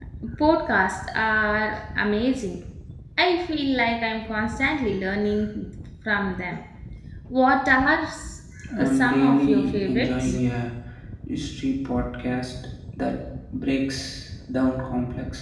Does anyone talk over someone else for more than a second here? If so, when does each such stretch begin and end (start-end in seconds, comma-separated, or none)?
8.8-10.3